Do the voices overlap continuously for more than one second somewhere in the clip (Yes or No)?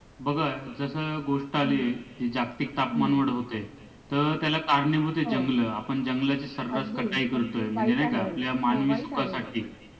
Yes